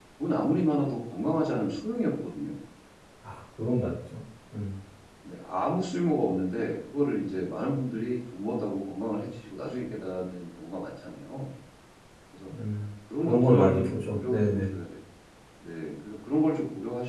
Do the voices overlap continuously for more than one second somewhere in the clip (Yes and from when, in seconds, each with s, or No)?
Yes, from 13.2 s